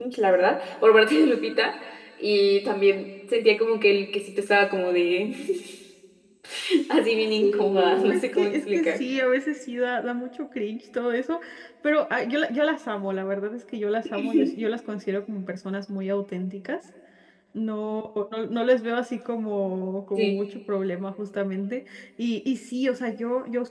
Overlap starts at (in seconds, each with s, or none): 7.4 s